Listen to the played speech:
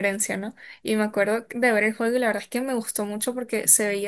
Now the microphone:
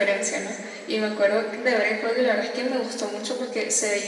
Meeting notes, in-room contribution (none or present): none